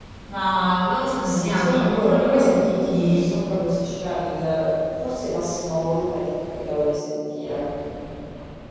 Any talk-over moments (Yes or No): Yes